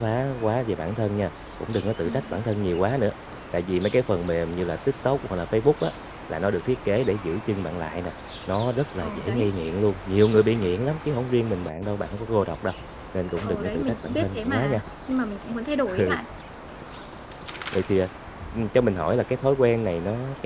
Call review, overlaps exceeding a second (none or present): present